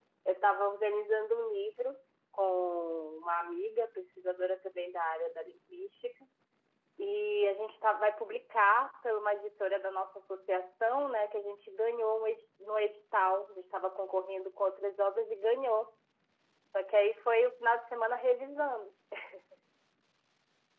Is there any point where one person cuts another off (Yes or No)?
No